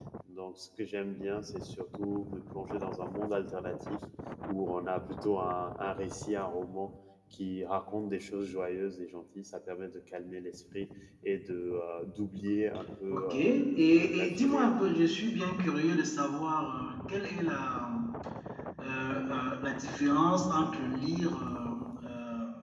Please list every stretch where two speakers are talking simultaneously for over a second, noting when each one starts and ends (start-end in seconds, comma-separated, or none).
13.1-14.7